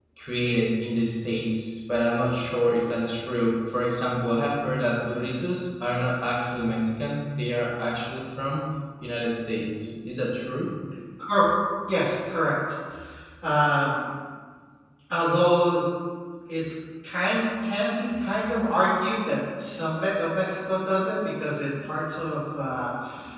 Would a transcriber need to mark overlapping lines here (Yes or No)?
No